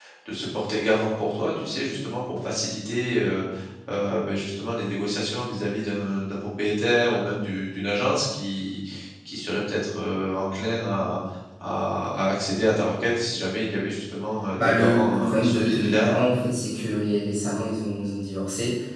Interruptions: present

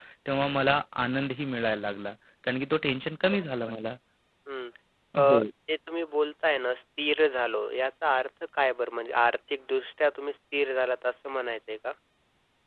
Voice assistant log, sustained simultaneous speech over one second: none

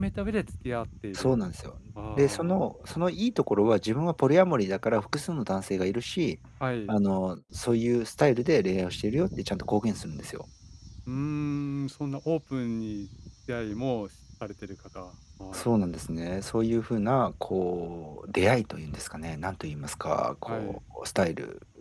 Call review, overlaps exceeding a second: none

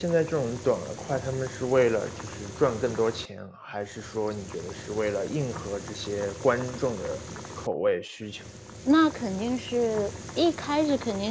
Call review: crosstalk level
none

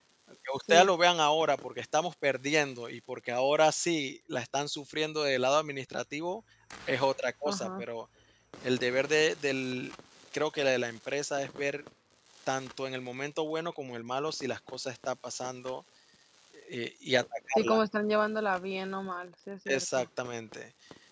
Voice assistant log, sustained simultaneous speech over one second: none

